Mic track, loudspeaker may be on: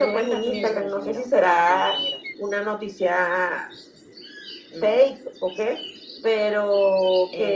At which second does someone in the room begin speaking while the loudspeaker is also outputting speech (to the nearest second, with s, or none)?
none